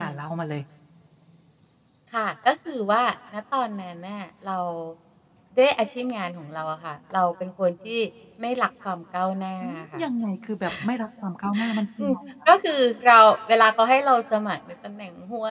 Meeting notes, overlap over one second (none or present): none